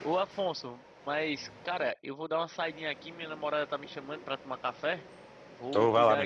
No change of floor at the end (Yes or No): No